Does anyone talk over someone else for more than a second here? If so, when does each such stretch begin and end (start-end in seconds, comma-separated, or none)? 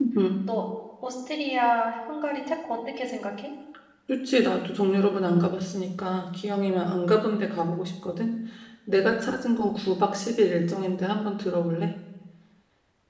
none